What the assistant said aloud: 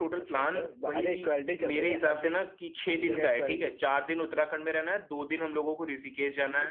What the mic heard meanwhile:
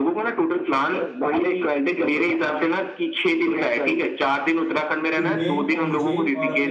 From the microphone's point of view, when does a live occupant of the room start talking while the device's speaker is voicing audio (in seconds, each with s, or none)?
5.2 s